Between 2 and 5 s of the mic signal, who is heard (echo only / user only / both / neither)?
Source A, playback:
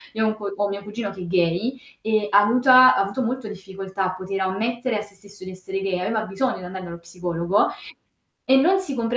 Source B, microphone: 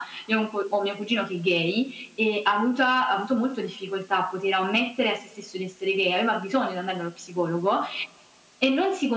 echo only